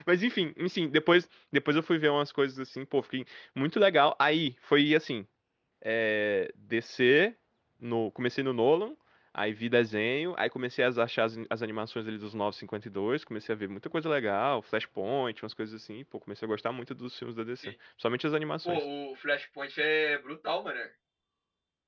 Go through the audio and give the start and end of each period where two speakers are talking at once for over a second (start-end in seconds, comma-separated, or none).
none